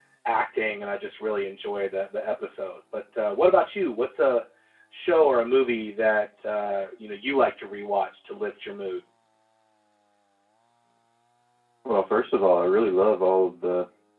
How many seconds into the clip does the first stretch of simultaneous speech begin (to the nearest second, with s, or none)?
none